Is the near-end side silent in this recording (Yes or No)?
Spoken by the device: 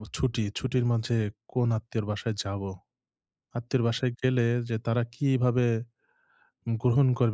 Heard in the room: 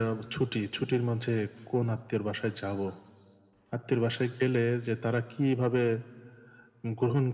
Yes